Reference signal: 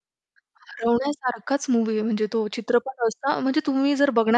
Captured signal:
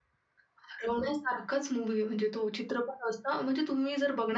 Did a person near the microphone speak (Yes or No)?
No